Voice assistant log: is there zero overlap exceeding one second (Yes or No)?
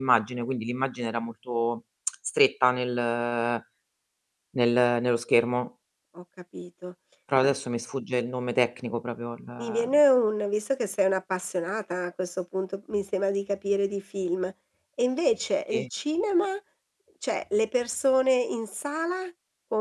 Yes